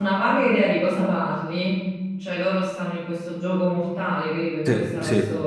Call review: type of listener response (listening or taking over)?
taking over